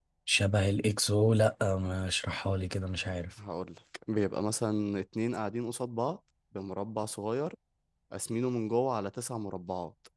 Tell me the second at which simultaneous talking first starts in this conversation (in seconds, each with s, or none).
none